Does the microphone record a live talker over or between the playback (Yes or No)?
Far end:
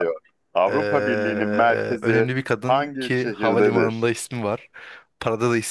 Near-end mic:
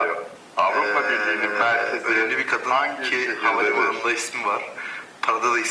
No